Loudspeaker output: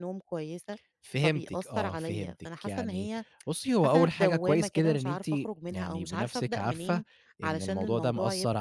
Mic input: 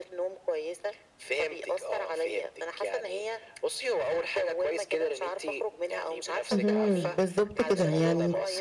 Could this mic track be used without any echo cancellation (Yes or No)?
No